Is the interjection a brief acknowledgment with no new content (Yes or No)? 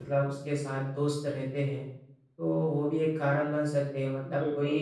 Yes